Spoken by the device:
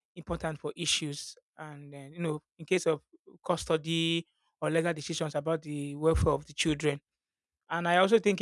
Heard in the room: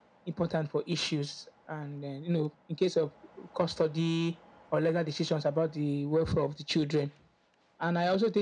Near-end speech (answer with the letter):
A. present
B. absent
B